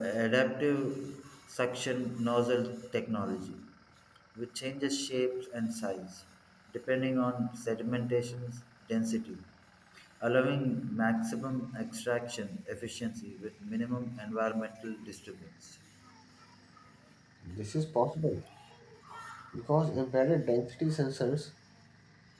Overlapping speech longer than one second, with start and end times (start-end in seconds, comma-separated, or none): none